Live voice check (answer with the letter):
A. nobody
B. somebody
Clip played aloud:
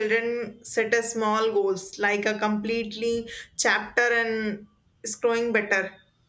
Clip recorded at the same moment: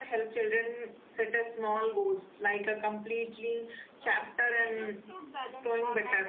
B